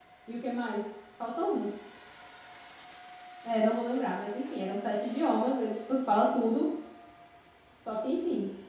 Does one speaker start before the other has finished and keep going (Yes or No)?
No